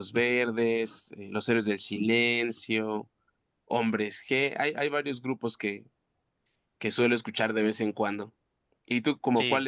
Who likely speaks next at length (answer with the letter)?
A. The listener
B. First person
B